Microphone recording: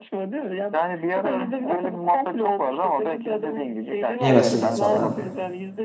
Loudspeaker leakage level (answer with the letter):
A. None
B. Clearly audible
B